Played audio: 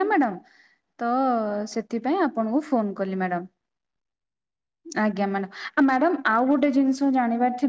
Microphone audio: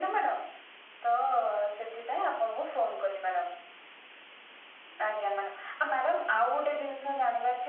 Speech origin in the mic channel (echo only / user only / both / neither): echo only